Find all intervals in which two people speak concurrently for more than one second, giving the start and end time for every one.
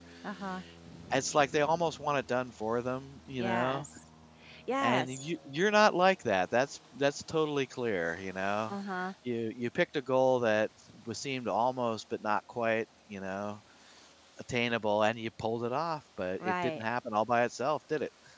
none

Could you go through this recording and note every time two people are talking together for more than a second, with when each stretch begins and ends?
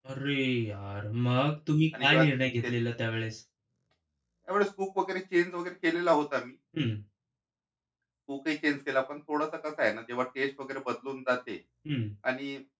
none

